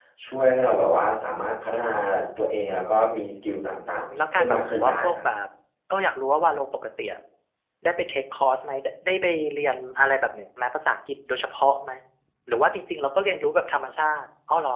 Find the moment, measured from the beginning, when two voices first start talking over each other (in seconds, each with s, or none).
3.8 s